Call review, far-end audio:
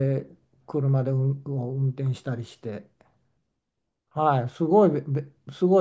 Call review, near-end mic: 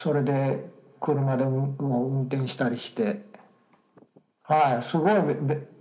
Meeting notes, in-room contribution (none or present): none